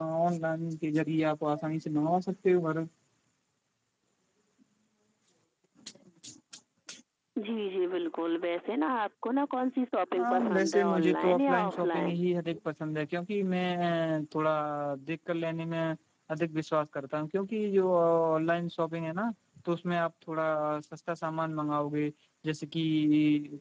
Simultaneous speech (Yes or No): Yes